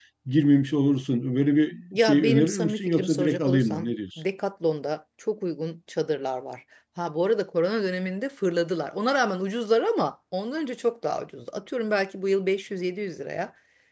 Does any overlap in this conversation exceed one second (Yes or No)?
Yes